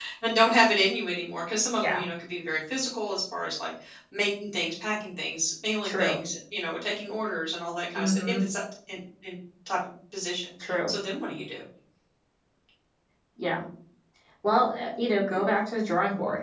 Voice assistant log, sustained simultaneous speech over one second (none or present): none